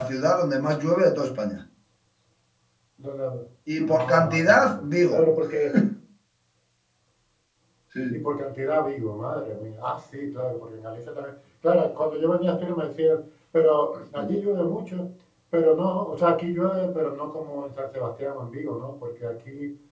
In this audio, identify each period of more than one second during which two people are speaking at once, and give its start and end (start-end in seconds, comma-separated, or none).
3.9-5.2